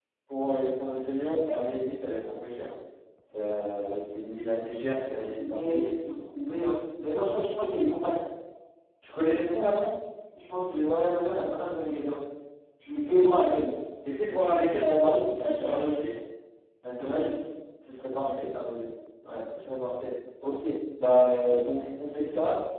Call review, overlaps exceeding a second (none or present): present